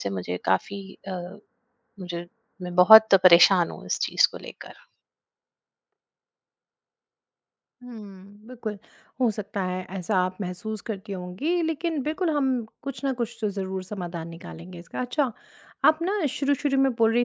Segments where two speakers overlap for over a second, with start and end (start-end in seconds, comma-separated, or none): none